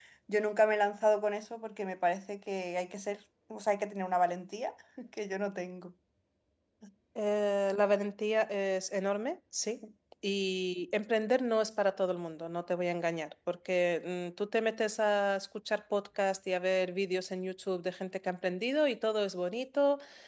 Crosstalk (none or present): none